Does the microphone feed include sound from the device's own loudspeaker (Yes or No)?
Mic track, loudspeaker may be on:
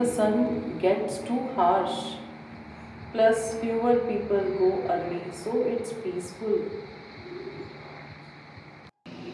Yes